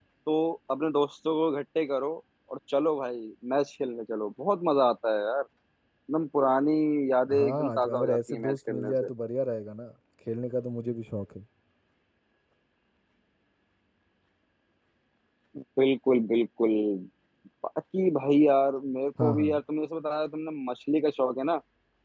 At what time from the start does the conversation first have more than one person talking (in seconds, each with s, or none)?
7.3 s